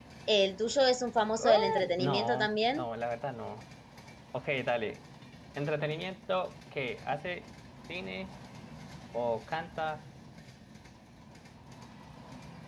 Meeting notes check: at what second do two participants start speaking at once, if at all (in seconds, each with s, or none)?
1.4 s